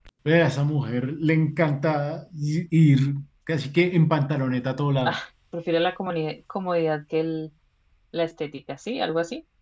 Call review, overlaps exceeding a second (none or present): none